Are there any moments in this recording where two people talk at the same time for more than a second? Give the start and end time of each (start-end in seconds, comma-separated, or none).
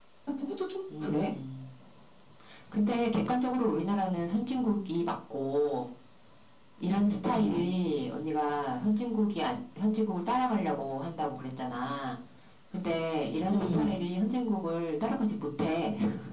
none